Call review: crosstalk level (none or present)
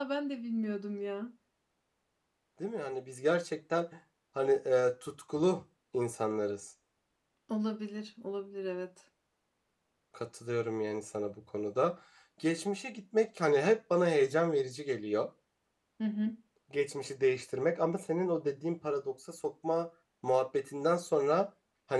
none